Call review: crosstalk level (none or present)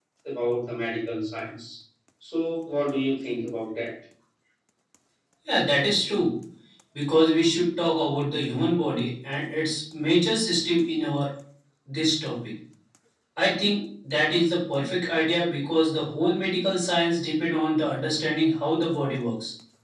none